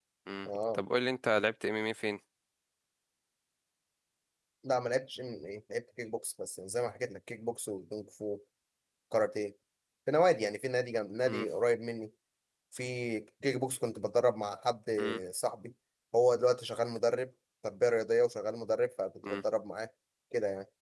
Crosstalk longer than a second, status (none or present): none